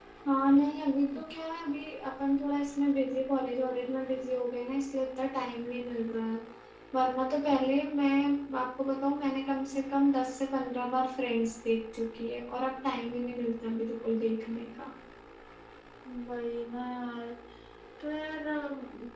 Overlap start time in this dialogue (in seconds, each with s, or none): none